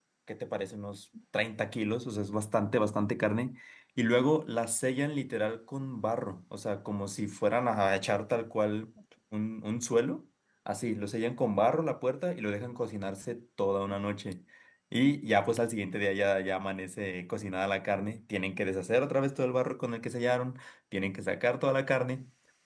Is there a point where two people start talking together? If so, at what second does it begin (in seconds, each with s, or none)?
none